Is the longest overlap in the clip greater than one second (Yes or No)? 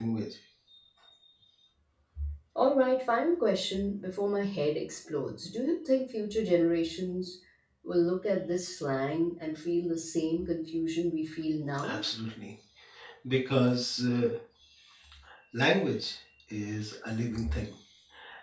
No